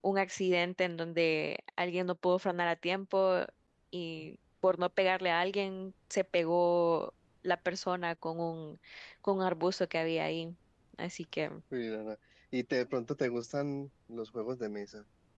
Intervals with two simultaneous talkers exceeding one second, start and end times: none

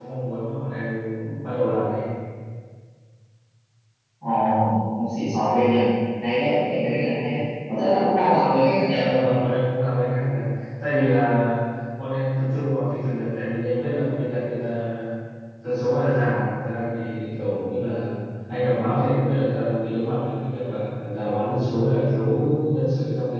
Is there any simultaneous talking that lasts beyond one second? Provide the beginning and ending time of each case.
none

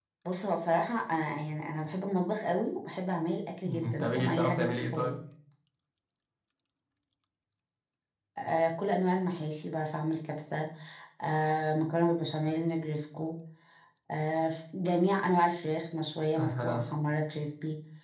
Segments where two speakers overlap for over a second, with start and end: 3.6-5.2

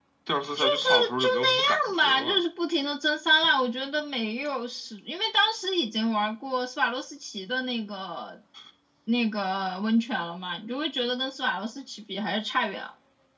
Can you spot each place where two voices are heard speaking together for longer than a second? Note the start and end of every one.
0.6-2.4

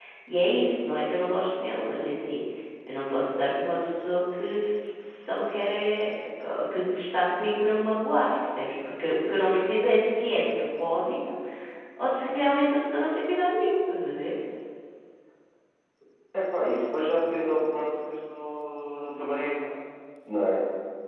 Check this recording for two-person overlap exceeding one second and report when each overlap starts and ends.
none

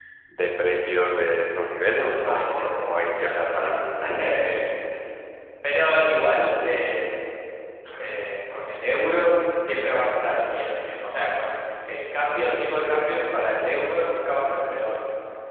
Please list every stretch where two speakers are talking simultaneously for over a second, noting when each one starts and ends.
2.0-3.8

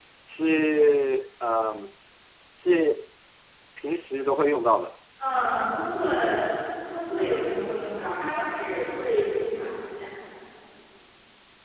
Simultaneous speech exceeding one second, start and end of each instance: none

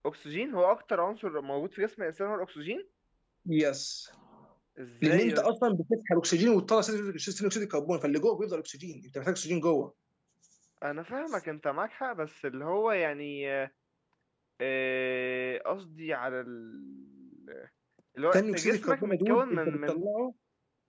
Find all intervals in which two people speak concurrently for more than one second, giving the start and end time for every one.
18.3-20.0

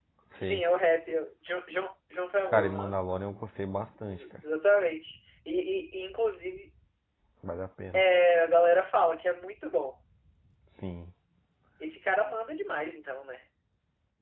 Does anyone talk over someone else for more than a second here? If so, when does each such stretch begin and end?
none

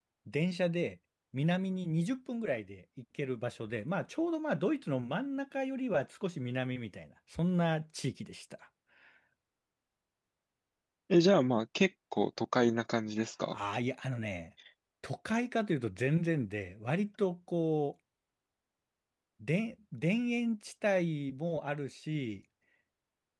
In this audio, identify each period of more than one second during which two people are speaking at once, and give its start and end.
none

